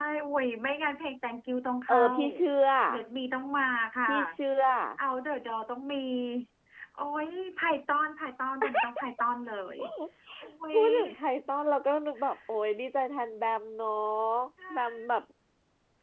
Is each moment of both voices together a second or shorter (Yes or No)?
Yes